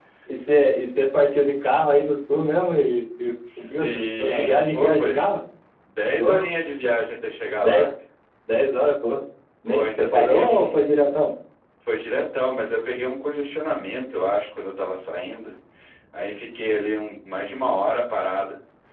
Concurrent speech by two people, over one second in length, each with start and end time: 3.6-5.2, 9.7-11.1

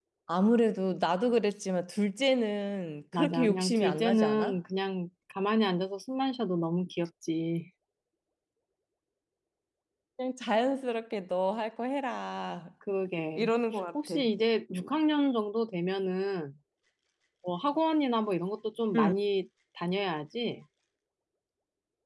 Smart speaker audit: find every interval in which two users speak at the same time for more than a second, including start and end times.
3.1-4.6

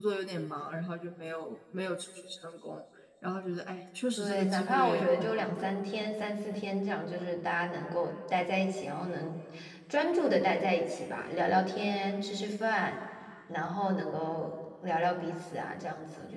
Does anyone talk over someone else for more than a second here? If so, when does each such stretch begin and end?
4.2-5.8

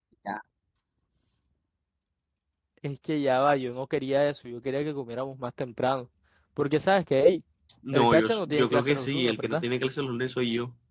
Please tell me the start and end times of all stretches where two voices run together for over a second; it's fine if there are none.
7.9-9.6

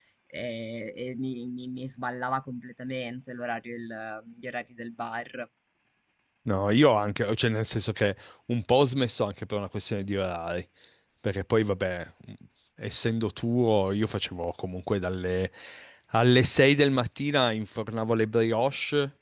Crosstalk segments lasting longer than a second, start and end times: none

